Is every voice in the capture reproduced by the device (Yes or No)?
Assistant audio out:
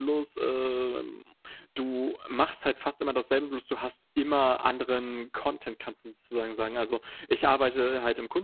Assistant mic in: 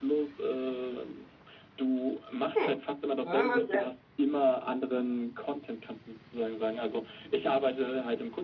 No